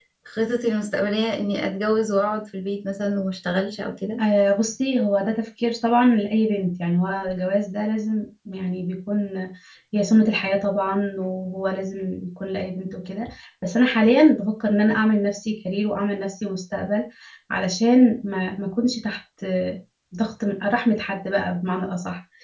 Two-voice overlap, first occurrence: none

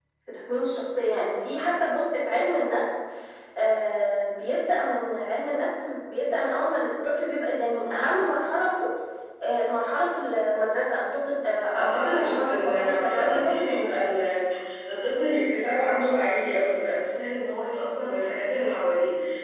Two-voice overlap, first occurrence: 11.7 s

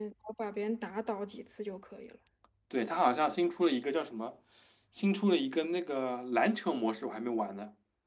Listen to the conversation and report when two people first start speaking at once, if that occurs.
none

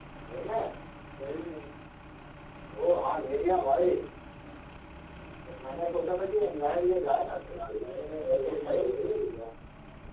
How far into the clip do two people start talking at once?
7.6 s

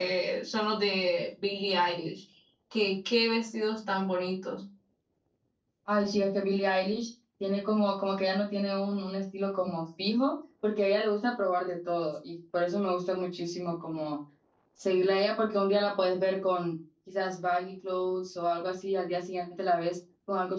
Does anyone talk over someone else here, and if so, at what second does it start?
none

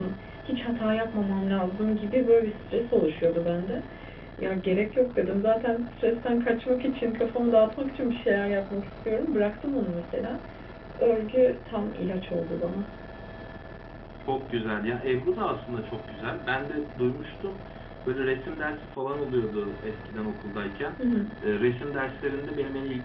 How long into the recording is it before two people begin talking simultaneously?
none

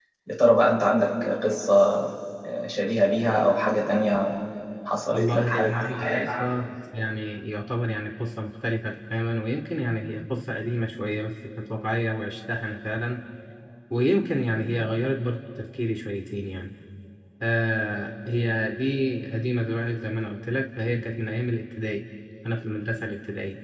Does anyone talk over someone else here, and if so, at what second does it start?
5.1 s

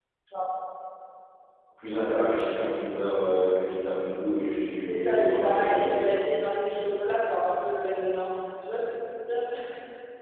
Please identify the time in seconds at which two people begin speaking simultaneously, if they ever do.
4.8 s

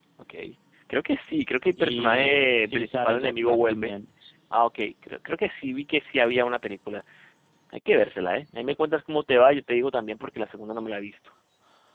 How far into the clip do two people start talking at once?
1.8 s

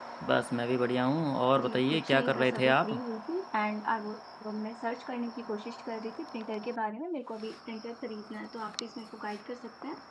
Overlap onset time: 1.6 s

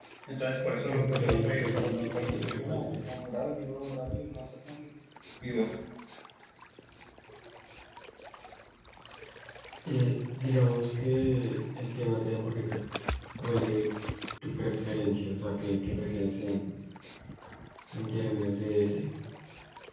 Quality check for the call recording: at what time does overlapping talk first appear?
0.9 s

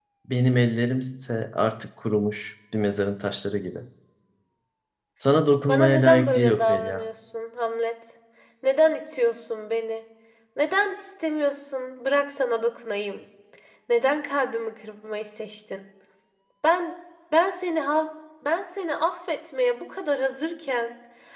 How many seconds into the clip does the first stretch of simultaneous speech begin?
5.6 s

